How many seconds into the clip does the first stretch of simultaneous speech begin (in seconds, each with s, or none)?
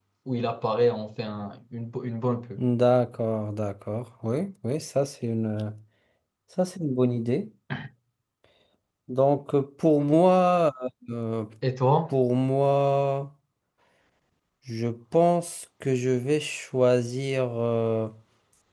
none